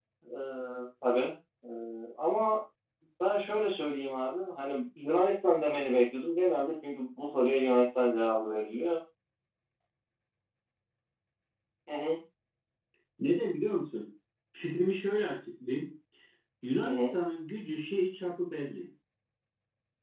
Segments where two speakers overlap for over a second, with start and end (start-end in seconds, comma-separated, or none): none